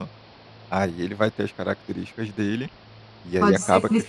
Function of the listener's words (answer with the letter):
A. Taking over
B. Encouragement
A